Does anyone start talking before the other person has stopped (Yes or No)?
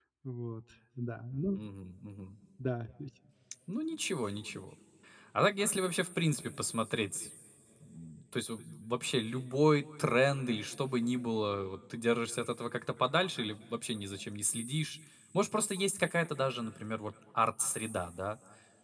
No